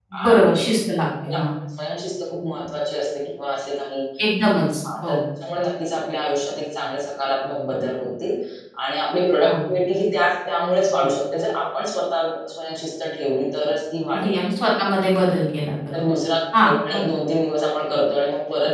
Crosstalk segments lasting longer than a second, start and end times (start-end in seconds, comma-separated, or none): none